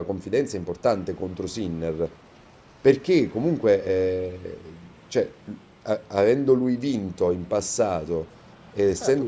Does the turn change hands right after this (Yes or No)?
Yes